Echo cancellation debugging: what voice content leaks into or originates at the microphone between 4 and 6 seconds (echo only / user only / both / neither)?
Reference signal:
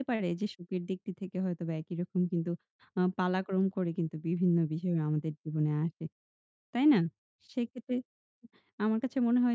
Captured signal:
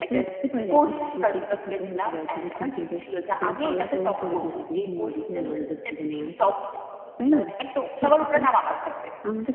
both